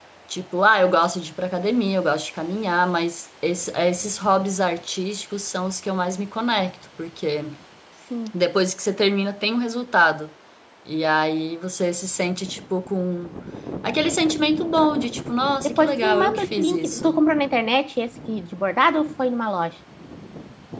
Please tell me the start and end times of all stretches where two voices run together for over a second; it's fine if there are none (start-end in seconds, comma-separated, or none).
15.6-17.2